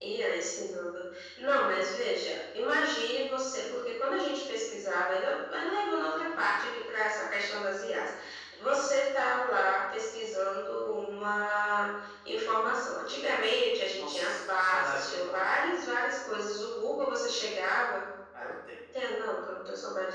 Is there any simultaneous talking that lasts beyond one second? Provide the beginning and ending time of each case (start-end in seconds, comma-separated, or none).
14.0-15.4